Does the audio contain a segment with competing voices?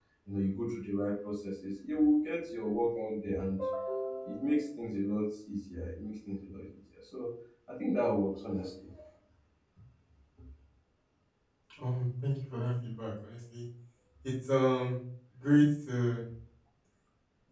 No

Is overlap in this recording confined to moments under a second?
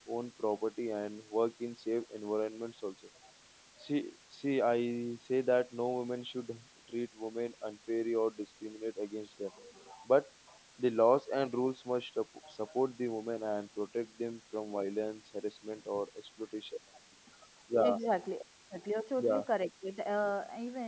Yes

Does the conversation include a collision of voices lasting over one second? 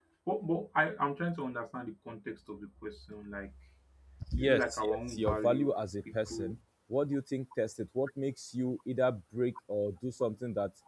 Yes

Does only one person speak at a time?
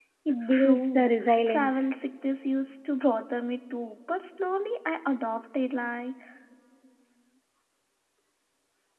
No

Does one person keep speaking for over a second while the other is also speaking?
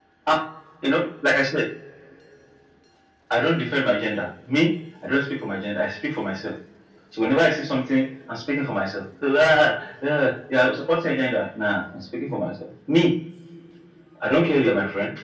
No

